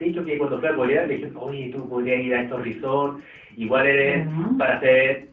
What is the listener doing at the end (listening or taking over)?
listening